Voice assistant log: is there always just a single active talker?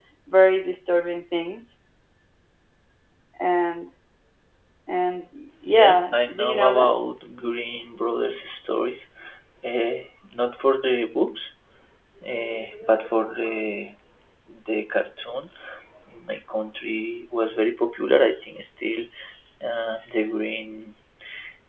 No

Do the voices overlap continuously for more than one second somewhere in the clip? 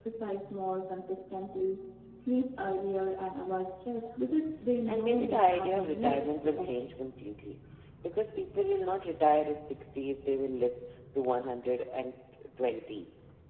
Yes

